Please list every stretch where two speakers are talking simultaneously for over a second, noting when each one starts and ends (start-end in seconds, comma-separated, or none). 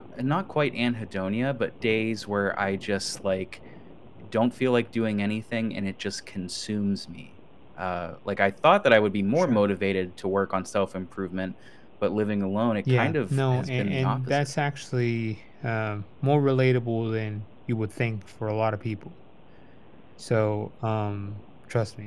12.9-14.5